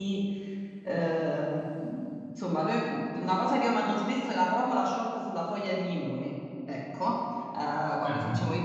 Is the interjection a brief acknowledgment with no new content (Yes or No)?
Yes